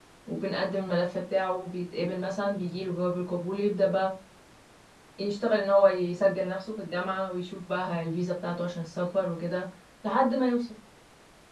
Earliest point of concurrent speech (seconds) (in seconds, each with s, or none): none